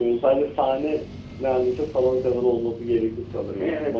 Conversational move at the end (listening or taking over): taking over